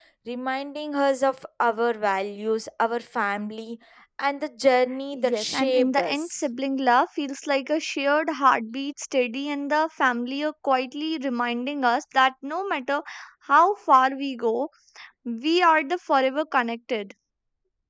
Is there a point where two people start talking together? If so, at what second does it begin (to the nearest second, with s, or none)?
5 s